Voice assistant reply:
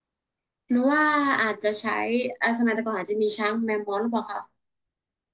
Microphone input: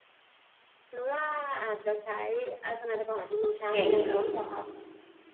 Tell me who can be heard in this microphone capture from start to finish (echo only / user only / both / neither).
both